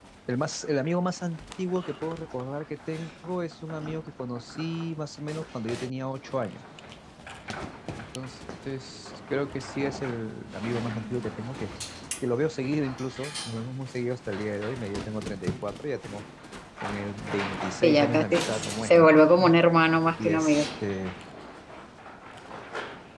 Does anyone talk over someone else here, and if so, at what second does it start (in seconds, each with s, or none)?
17.8 s